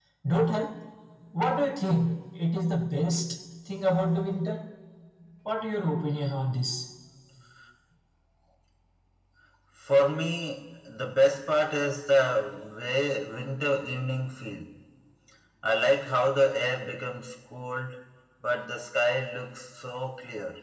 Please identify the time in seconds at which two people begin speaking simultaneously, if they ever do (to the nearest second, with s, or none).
none